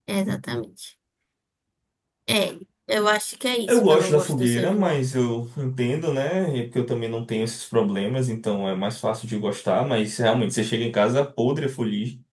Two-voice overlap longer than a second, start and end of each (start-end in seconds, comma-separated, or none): 3.7-5.0